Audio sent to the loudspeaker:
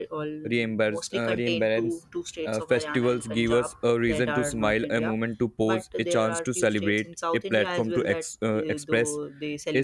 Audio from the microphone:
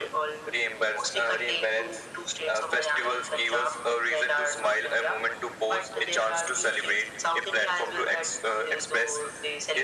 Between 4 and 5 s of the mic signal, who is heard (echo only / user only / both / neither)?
echo only